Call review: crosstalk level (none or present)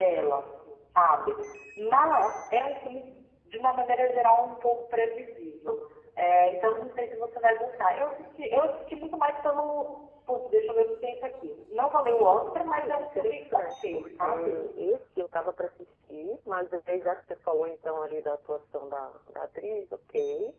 present